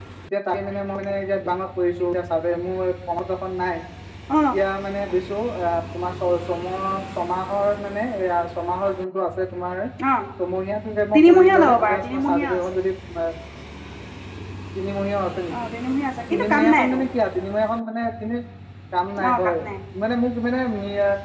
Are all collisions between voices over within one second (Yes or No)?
No